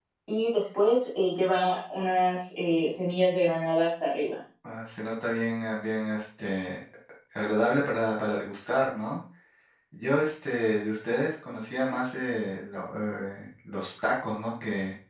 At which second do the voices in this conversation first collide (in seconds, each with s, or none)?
none